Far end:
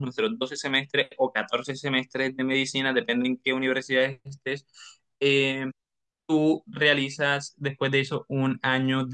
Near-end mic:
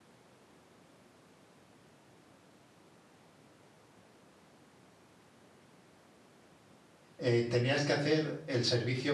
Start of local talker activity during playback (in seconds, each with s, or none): 7.2 s